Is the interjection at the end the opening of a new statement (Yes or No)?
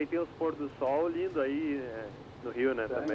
Yes